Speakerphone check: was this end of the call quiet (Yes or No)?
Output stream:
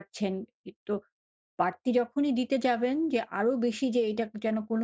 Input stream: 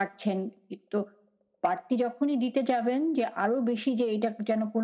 Yes